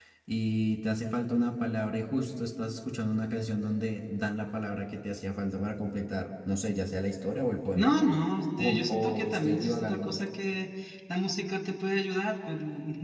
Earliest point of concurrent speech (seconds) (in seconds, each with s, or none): 8.6 s